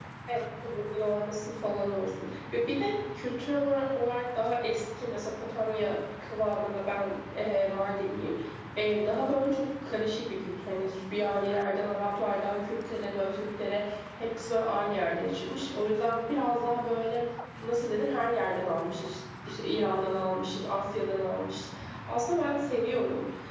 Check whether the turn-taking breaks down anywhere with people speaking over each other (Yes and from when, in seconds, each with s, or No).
No